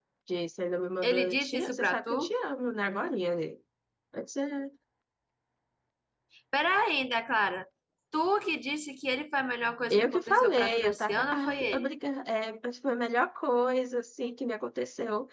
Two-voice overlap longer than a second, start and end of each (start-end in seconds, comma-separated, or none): 1.0-2.3, 9.9-11.9